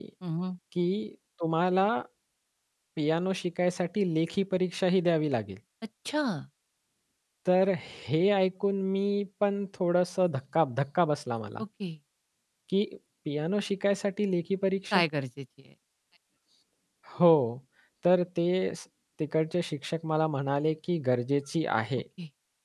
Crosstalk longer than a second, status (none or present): none